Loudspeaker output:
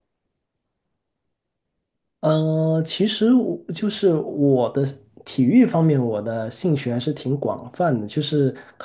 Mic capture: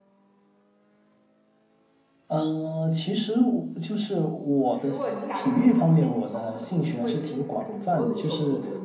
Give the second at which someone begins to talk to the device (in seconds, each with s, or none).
4.7 s